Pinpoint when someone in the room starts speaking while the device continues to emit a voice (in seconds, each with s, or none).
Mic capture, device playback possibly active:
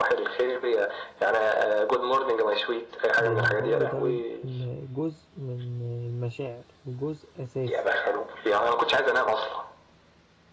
3.2 s